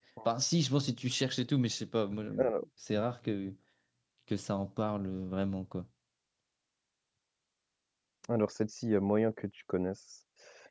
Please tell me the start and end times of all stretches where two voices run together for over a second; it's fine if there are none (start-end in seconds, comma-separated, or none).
none